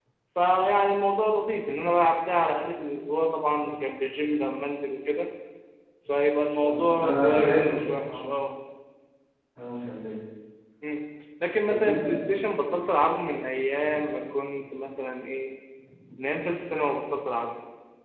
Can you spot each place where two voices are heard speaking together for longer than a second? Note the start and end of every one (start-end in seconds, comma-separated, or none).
6.6-8.3